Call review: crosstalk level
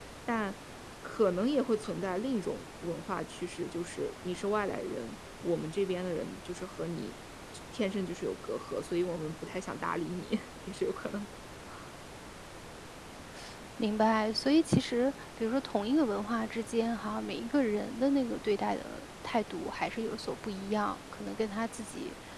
none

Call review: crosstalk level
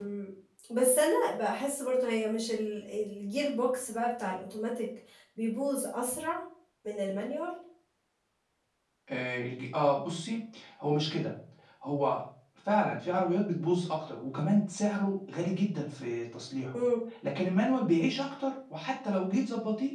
none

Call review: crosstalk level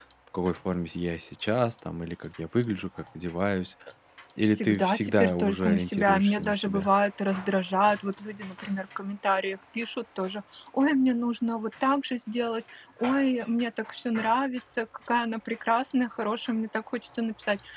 present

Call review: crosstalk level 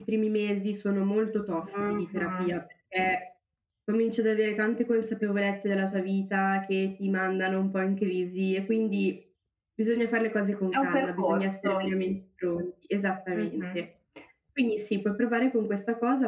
present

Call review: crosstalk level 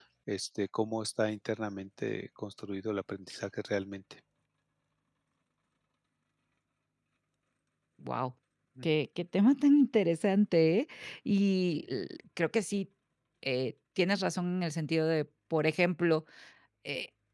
none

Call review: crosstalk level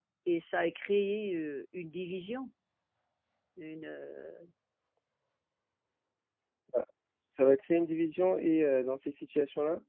none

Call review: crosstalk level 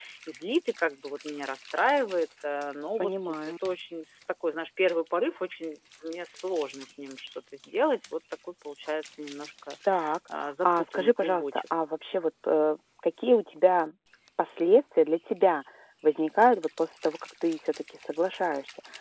present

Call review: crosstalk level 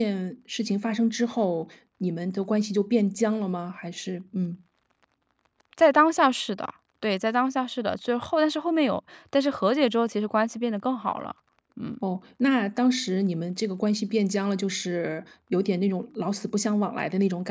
none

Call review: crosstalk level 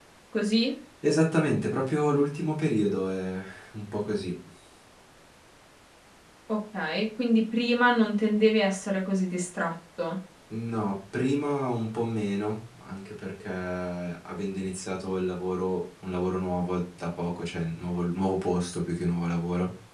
none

